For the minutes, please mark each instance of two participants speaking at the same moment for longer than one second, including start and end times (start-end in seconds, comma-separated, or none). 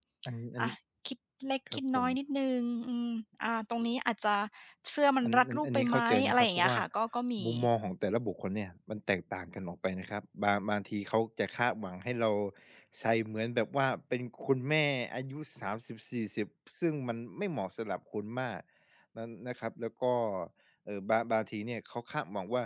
5.2-6.8